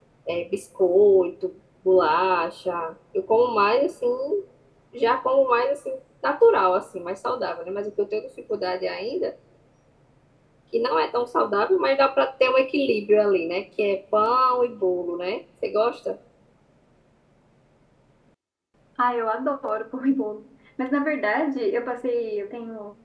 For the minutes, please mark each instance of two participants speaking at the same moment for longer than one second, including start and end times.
none

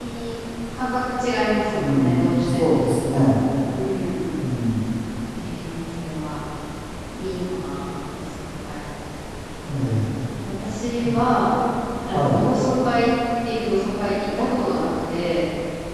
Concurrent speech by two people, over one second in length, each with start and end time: 1.7-2.9

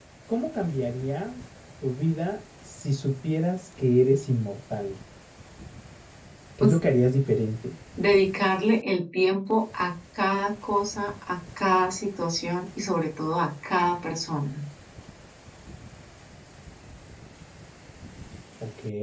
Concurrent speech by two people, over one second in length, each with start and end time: none

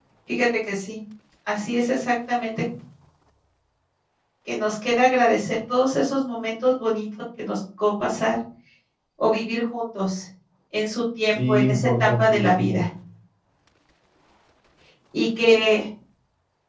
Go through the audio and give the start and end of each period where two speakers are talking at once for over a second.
11.3-12.8

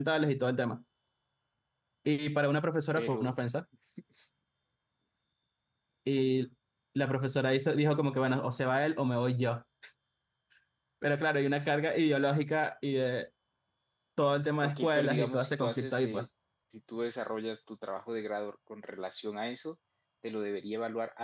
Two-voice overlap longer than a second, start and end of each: 14.6-16.2

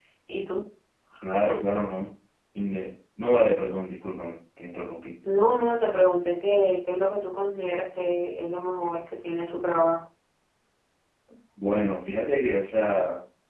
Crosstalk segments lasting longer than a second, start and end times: none

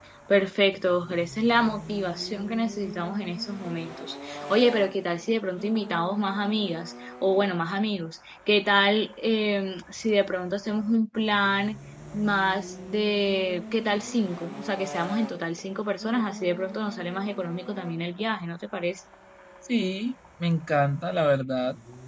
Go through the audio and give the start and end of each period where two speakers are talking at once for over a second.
none

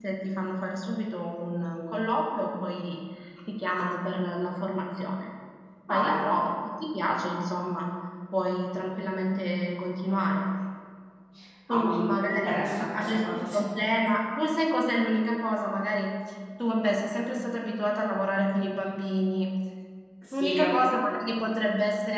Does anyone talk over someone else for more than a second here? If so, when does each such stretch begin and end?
11.7-13.7

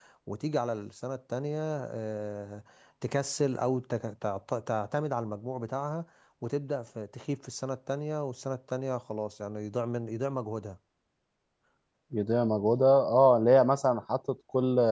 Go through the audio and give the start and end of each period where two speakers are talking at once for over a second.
none

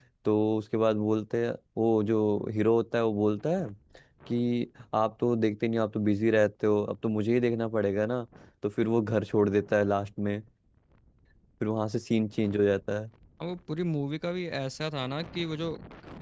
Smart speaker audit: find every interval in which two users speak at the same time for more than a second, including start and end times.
none

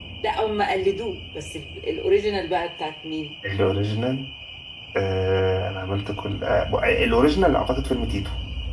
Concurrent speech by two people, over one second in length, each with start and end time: none

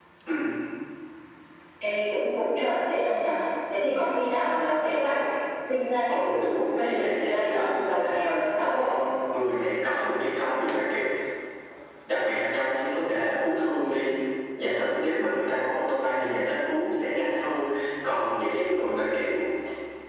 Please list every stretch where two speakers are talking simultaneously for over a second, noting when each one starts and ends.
6.1-8.2

